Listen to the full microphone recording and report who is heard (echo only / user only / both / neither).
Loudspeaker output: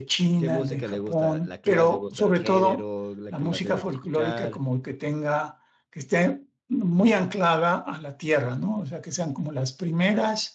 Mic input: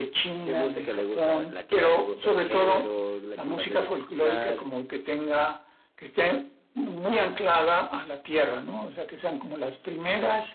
echo only